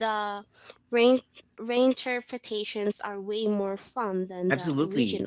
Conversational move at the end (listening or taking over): taking over